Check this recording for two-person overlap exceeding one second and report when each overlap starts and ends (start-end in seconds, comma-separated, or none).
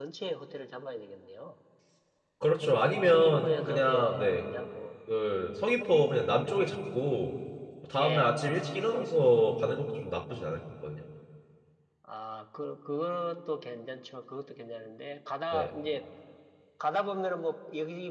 2.6-4.4